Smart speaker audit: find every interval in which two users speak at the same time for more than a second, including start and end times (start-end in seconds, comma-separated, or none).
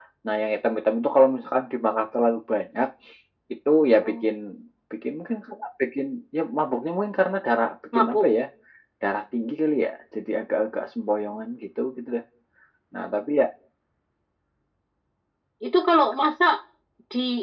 none